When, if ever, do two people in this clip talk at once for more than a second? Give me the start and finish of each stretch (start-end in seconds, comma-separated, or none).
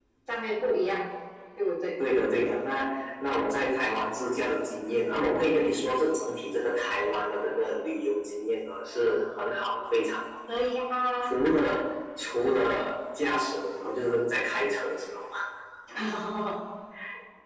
none